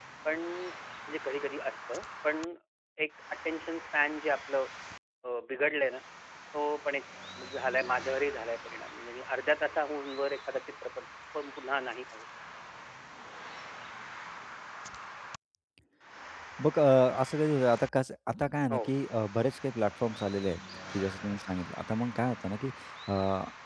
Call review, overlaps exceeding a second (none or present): none